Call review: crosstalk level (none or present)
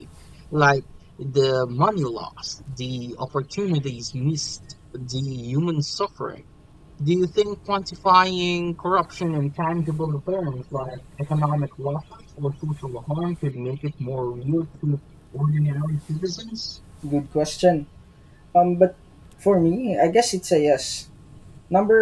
none